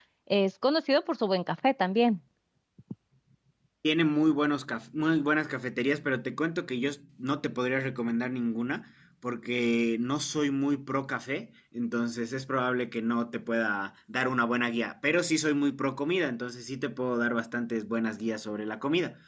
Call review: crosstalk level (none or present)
none